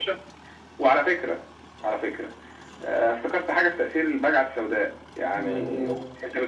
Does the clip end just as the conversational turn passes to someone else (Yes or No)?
No